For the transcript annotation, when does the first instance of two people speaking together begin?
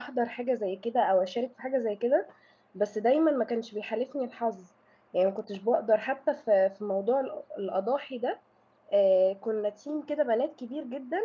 none

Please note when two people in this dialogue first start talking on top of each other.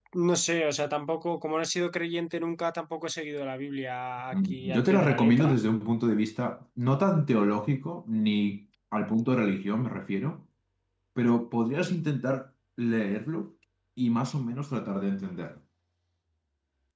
4 s

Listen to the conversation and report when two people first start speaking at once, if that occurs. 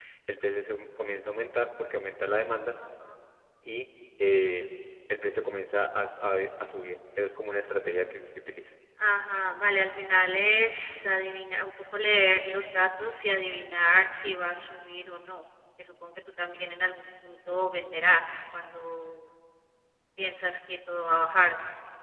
none

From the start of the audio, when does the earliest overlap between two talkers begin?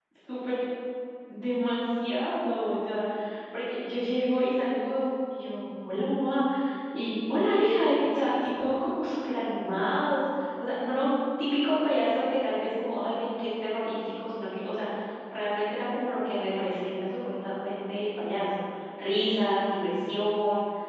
none

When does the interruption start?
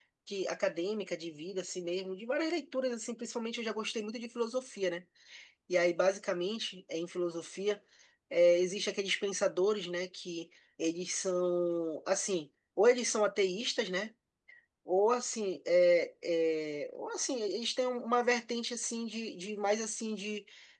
none

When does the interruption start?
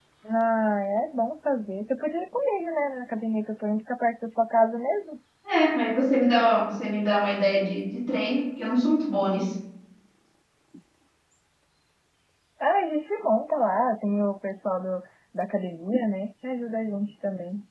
none

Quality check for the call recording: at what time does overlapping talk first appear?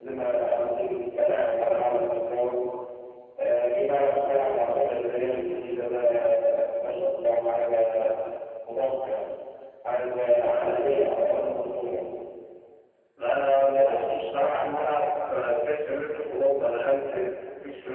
none

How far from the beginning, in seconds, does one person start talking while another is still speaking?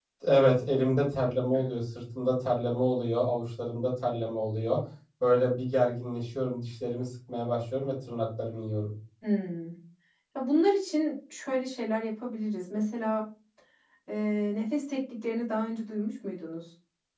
none

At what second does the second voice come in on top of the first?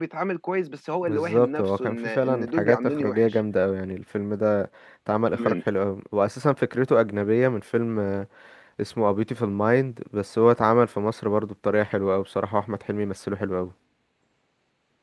1 s

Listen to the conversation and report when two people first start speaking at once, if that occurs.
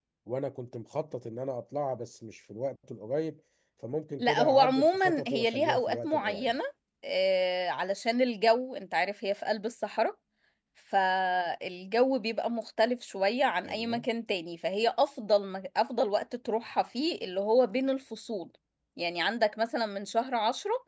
4 s

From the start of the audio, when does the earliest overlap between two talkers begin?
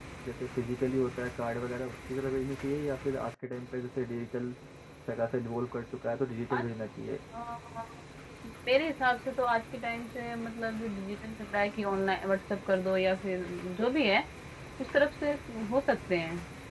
none

